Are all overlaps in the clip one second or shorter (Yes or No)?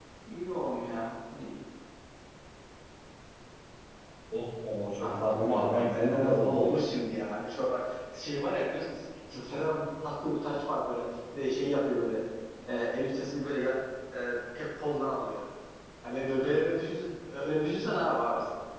No